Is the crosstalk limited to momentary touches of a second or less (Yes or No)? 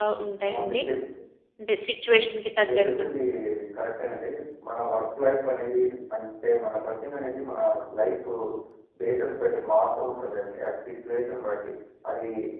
Yes